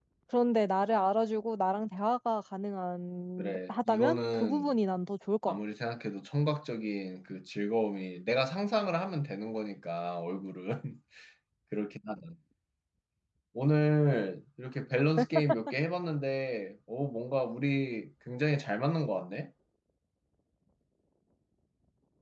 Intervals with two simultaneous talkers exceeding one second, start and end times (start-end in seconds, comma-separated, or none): 3.4-4.7